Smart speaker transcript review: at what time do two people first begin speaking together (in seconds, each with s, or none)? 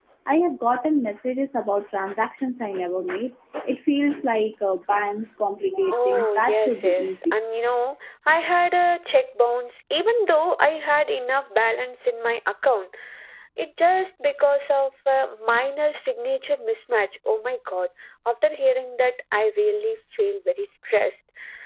5.9 s